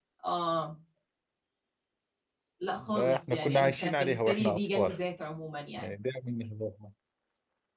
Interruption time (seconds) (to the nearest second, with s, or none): 3 s